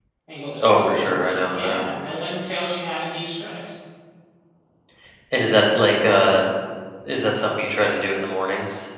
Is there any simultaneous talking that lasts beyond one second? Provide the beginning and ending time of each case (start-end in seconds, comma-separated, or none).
0.6-1.9